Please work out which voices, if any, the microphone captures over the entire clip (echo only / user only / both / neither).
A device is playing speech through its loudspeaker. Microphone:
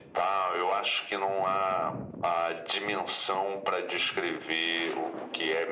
echo only